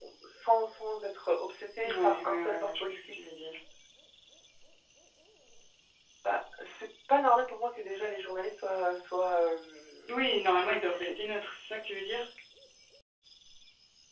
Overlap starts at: 2 s

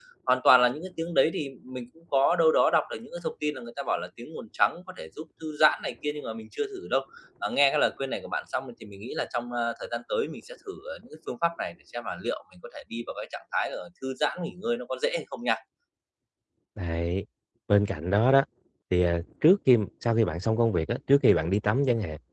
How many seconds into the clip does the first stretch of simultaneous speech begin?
none

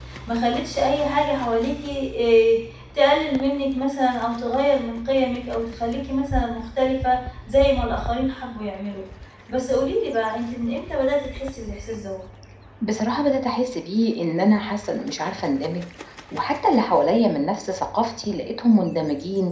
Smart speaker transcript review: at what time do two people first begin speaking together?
none

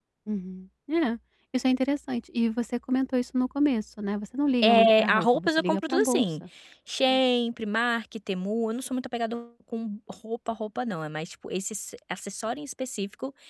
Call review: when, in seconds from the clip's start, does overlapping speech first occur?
5 s

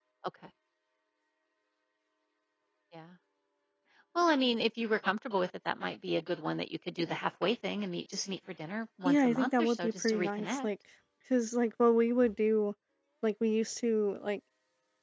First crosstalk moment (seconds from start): 9 s

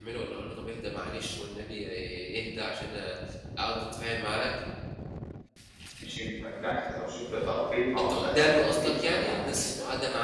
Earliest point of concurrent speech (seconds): 8 s

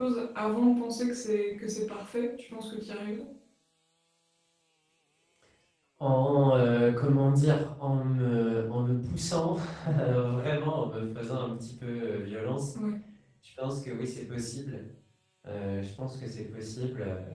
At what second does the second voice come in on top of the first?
none

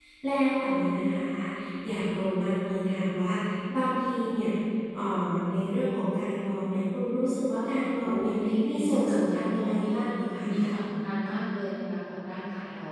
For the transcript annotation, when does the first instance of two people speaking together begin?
8 s

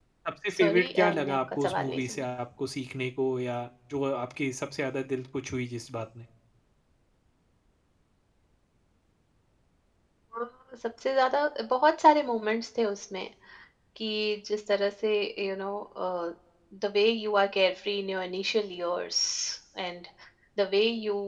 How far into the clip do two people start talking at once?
1 s

